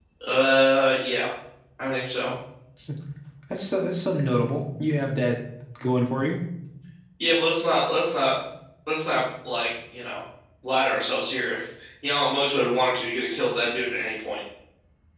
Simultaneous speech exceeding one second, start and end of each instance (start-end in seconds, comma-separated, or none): none